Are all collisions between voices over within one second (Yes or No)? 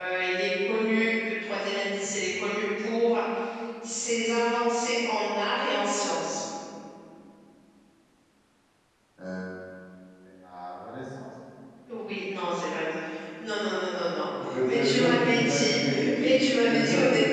No